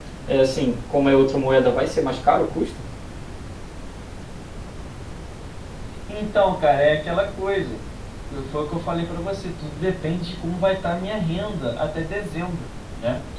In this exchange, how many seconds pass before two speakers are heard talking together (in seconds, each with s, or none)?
none